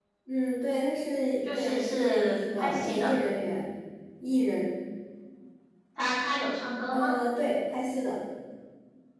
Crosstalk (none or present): present